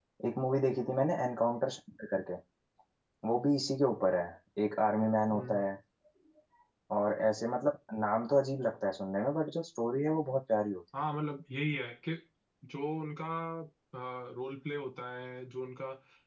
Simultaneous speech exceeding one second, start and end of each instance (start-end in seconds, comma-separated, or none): none